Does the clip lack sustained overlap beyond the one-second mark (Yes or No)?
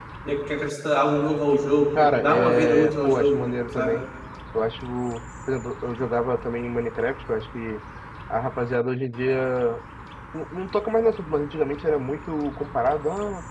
No